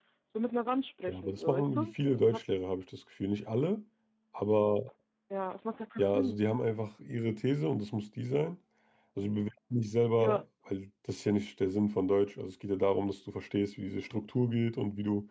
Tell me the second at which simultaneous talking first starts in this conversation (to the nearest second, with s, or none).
1 s